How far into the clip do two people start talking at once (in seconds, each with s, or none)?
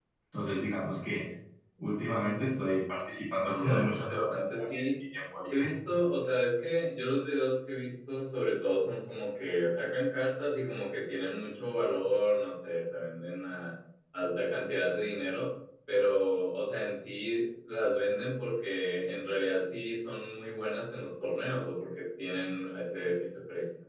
3.5 s